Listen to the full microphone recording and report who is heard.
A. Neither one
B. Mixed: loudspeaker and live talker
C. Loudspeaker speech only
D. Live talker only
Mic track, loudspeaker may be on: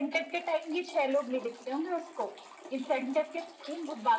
C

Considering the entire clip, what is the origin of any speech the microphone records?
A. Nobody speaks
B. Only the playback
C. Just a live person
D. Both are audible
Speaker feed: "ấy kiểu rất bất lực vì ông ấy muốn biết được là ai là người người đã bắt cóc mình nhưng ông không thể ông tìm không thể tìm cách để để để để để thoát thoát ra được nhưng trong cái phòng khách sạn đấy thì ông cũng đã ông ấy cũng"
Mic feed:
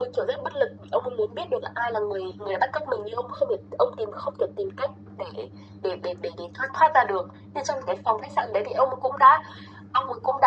B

